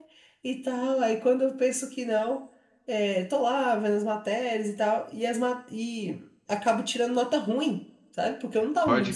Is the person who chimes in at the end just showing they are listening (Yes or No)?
No